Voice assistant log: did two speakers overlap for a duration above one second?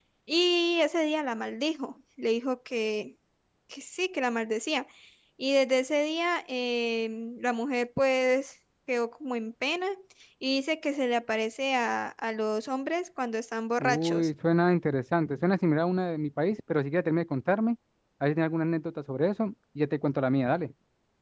No

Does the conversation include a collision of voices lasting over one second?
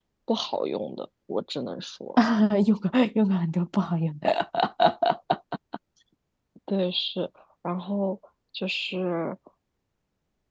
No

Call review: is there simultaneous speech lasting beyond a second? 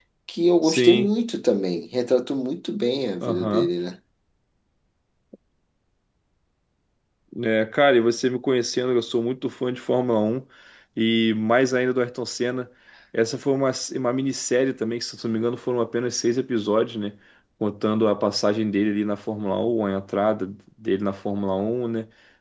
No

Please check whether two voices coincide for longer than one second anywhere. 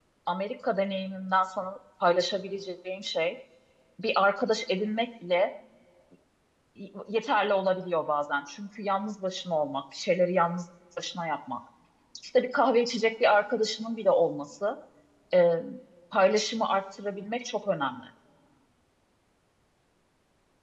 No

